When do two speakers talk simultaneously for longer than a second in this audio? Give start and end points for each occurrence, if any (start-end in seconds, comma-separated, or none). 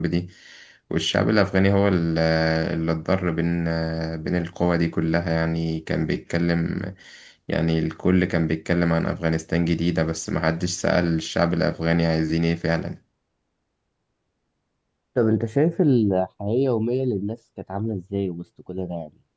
none